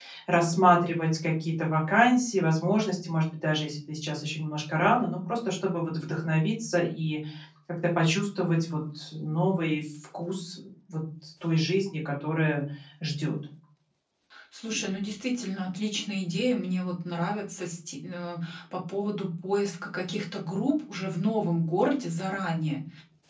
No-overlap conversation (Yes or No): Yes